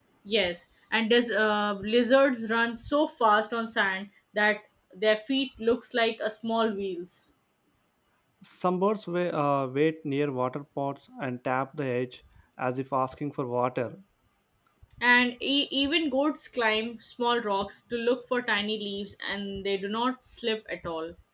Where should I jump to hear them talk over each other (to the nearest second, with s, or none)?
none